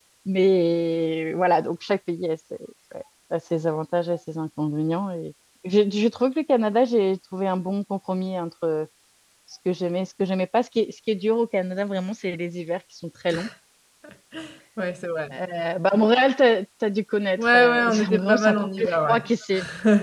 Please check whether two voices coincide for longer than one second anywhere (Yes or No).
Yes